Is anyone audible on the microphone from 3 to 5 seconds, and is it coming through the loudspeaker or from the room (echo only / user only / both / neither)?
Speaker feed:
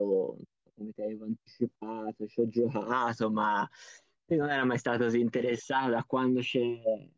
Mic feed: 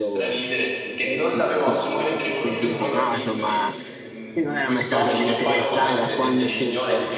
both